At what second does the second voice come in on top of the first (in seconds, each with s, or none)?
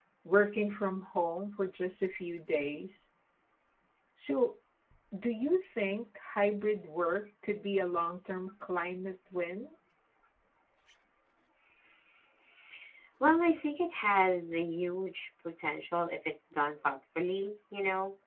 none